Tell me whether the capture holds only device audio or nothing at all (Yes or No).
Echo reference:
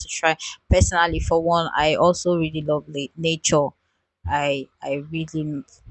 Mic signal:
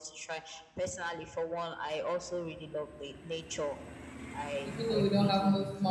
No